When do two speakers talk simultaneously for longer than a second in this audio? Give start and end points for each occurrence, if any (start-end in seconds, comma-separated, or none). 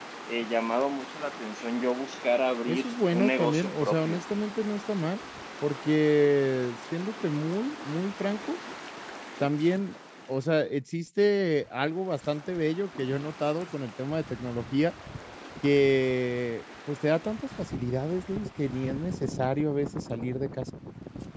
2.7-4.2